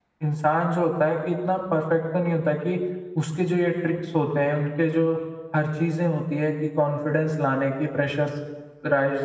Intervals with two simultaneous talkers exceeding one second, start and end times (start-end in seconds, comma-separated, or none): none